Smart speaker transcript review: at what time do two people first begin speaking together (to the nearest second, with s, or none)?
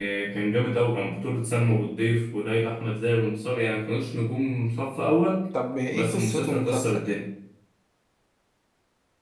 6 s